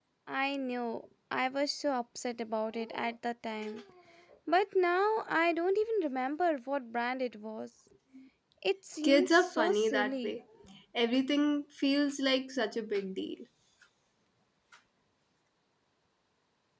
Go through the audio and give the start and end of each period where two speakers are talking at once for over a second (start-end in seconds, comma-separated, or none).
9.0-10.4